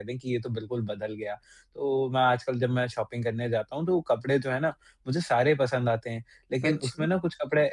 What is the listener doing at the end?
listening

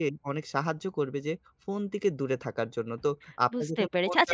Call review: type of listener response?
taking over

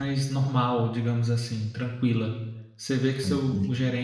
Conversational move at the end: listening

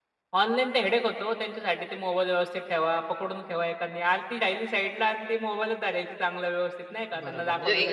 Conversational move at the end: taking over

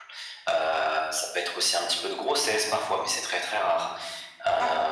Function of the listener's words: listening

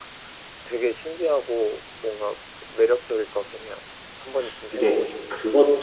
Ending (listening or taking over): taking over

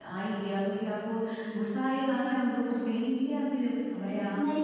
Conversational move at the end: taking over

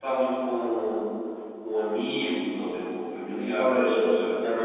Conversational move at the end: taking over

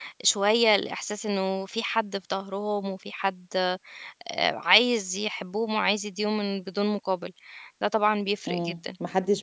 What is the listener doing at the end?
taking over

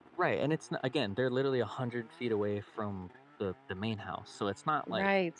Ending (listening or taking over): taking over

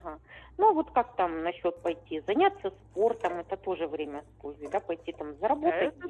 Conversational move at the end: taking over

